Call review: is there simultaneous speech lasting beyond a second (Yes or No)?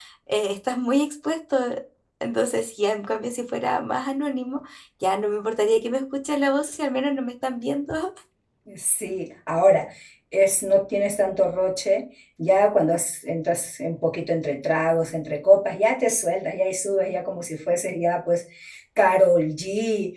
No